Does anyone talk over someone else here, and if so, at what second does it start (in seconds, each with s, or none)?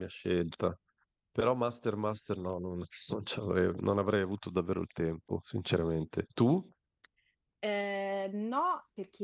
none